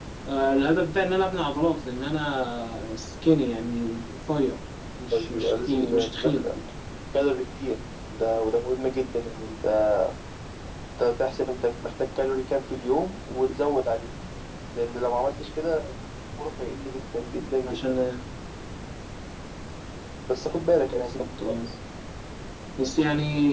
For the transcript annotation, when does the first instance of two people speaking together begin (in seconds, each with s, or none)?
5.1 s